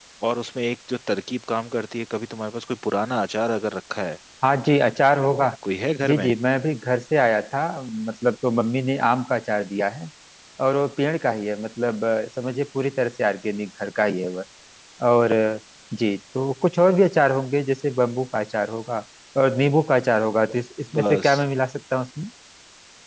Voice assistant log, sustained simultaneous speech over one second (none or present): none